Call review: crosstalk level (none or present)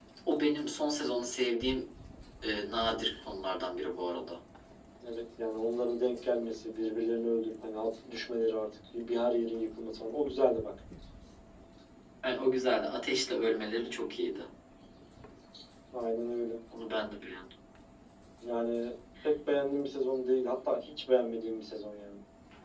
none